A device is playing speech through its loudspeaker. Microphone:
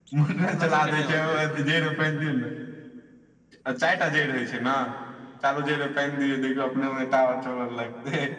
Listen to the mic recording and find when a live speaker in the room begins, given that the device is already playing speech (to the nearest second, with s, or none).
0 s